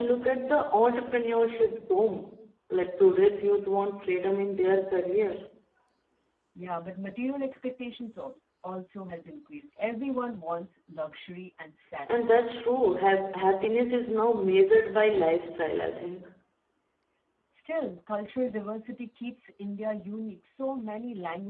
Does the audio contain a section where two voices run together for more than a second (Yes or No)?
No